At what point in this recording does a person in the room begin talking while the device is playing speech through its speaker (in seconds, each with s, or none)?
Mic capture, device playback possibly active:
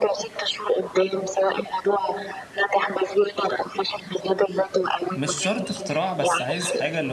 5.1 s